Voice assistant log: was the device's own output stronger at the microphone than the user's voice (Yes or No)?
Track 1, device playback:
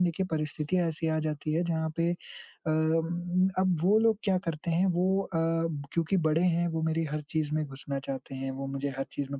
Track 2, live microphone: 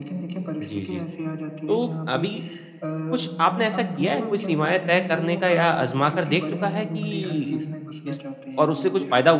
No